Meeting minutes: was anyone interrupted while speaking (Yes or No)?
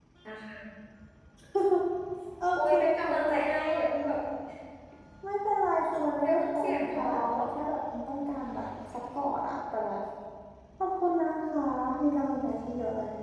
Yes